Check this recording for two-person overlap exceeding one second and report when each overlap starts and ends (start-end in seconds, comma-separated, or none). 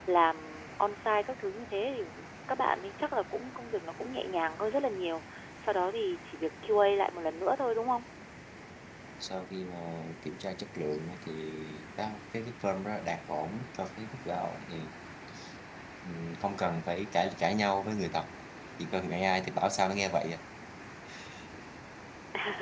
none